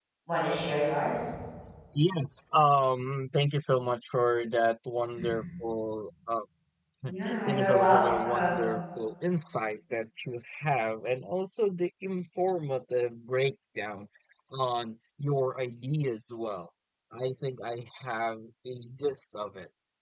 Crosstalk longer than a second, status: present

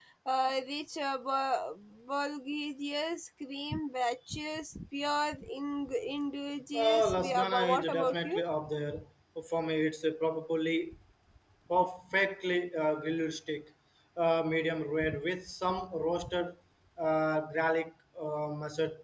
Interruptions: present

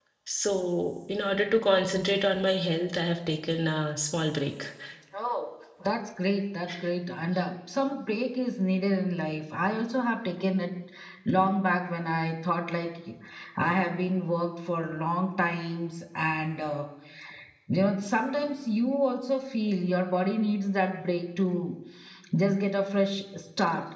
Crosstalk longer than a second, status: none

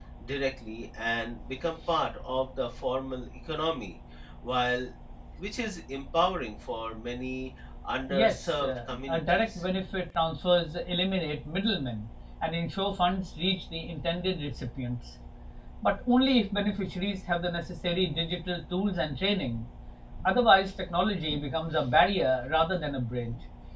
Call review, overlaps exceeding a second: present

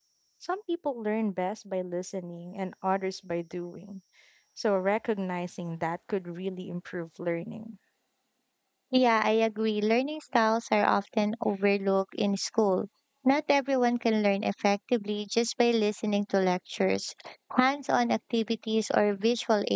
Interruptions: none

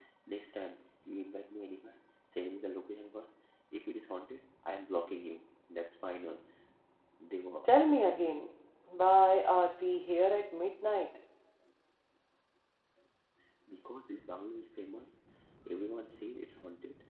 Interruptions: none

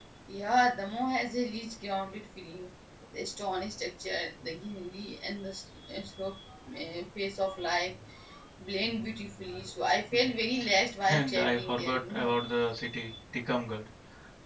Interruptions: present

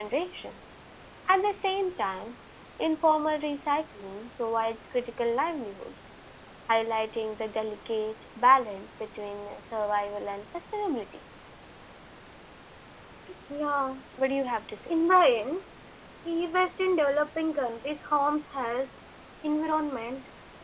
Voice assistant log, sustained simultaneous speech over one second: none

